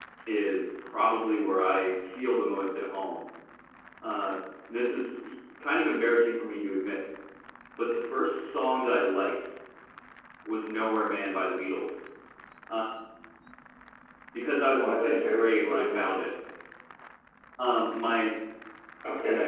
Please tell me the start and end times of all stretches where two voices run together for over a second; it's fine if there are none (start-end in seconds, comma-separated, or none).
14.7-16.1